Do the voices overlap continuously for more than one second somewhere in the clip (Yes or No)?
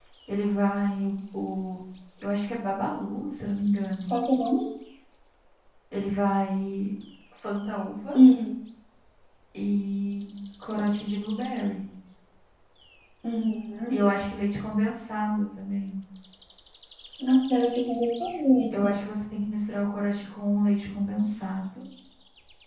No